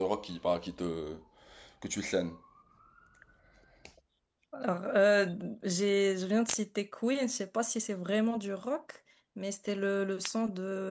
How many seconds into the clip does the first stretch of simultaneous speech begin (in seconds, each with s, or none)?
none